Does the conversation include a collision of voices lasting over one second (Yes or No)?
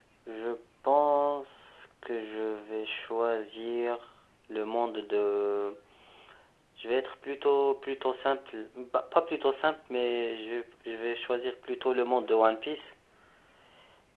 No